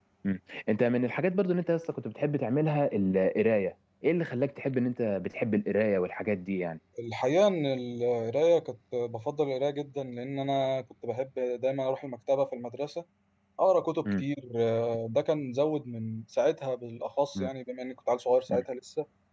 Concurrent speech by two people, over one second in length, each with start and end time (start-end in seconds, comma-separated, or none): none